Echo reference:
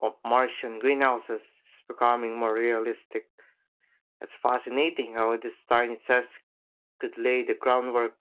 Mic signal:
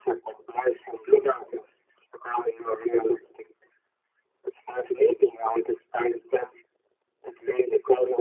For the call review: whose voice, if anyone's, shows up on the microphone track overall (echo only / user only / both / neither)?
echo only